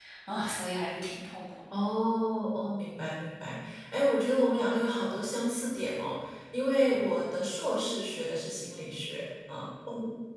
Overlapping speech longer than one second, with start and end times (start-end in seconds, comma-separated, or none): none